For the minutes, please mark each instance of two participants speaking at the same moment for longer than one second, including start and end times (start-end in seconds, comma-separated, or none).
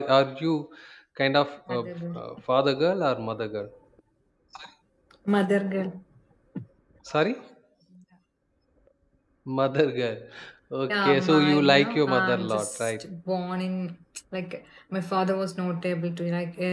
10.9-13.0